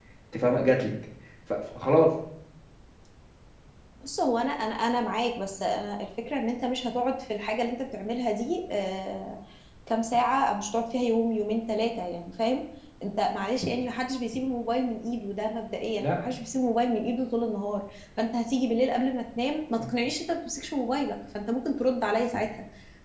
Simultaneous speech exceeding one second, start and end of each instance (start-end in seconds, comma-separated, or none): none